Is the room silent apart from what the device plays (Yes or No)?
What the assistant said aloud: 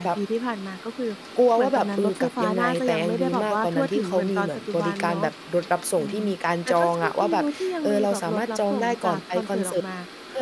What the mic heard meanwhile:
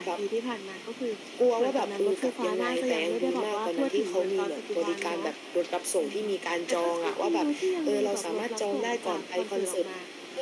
Yes